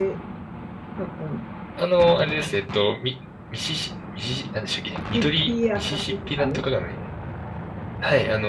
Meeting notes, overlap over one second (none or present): present